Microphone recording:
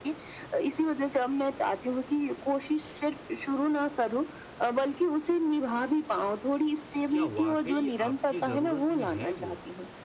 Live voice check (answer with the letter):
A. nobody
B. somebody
B